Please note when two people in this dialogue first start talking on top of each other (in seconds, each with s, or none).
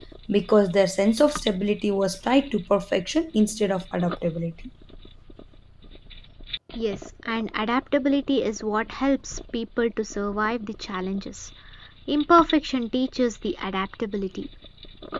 none